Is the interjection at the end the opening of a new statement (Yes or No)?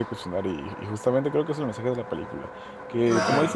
No